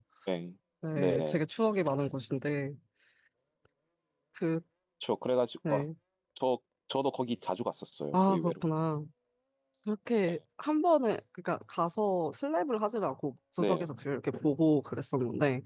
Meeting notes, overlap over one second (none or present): none